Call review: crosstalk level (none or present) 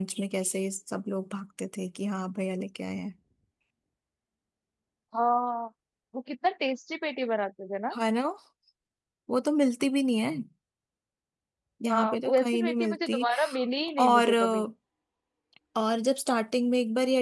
present